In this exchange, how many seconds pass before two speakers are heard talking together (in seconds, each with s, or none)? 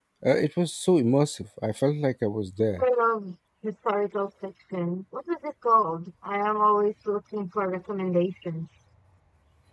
none